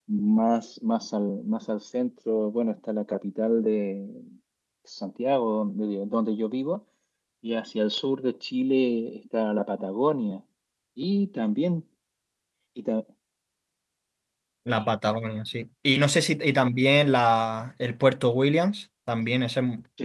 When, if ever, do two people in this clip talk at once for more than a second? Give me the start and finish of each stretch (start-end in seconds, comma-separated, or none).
none